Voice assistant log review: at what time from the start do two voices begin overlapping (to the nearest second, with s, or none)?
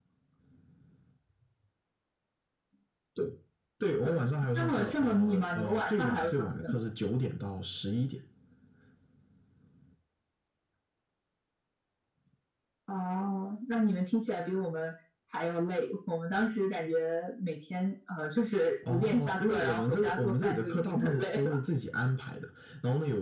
4 s